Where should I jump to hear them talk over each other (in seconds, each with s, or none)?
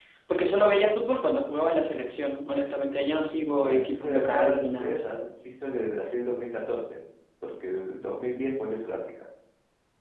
3.5 s